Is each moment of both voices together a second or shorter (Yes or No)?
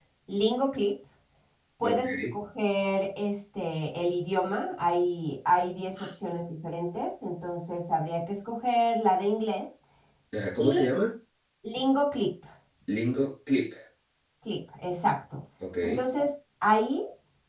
Yes